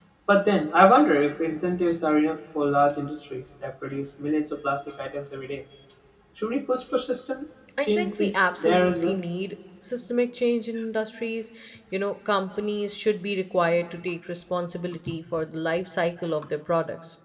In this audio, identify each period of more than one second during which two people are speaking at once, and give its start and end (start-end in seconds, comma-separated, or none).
7.8-9.2